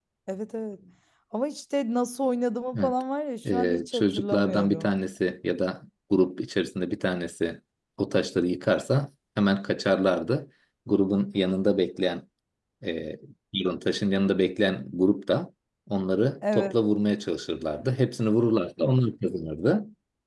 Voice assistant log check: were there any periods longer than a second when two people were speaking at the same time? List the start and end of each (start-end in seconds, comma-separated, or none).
3.5-4.9